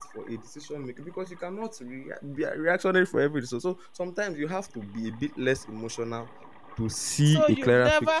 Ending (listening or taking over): taking over